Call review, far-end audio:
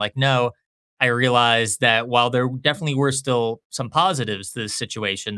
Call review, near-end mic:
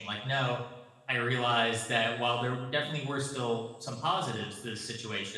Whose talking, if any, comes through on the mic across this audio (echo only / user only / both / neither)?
echo only